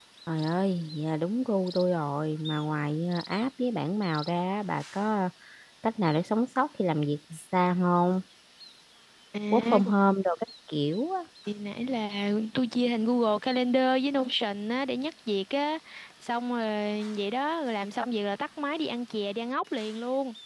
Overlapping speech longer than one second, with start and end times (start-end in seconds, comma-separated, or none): none